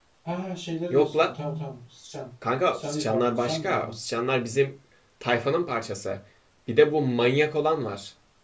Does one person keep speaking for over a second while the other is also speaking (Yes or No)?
Yes